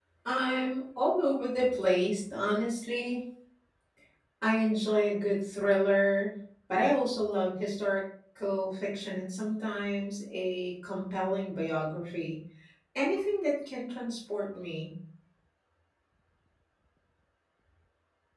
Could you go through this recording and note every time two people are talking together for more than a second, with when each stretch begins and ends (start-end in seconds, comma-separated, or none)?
none